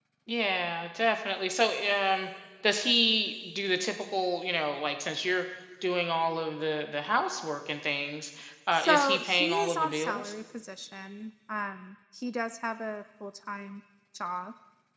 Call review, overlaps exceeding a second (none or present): present